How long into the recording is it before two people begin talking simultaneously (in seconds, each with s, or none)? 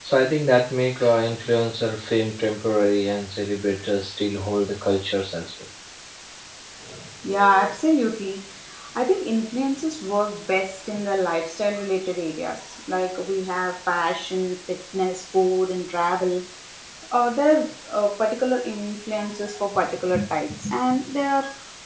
none